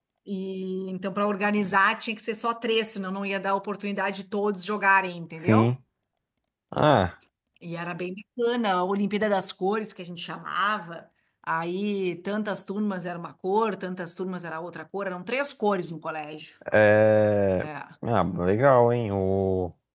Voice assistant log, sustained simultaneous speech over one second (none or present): none